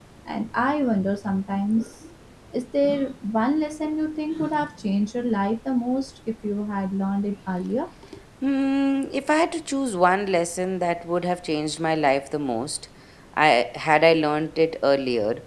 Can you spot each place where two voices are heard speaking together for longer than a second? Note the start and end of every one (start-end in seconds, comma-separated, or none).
none